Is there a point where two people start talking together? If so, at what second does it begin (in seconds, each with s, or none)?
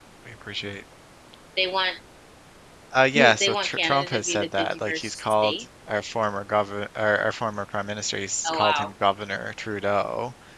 3.1 s